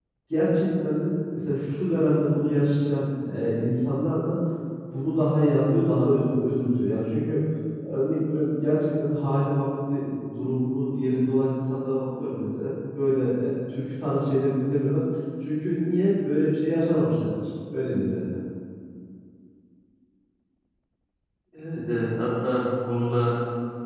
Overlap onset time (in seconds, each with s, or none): none